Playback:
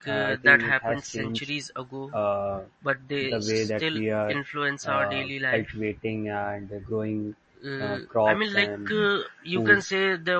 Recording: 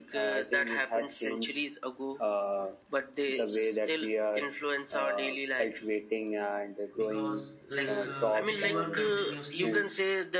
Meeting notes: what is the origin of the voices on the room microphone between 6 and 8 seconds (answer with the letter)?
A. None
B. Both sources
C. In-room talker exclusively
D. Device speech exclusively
B